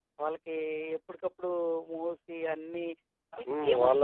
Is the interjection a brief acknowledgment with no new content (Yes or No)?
No